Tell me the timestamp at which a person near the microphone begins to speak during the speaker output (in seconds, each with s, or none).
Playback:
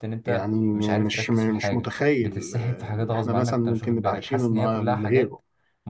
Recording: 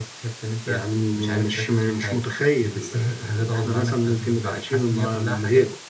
none